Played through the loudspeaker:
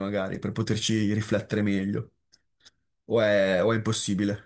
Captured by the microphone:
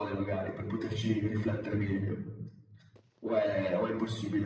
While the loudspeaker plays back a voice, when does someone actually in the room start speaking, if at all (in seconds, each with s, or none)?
none